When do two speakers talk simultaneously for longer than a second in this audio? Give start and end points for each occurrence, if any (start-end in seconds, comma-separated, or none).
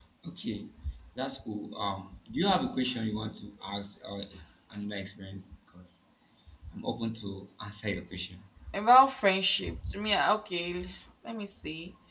none